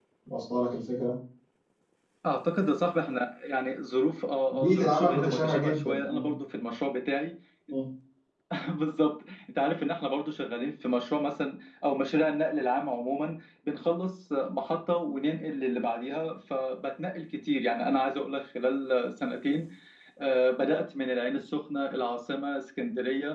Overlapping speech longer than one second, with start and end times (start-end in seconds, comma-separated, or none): 4.5-6.3